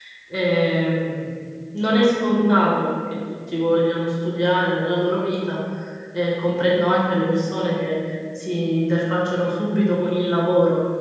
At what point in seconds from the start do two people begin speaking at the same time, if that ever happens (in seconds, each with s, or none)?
none